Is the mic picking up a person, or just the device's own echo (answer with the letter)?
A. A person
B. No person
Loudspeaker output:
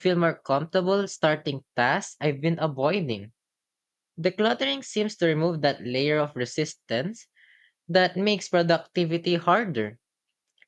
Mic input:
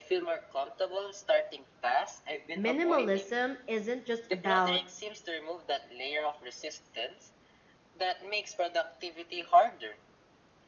A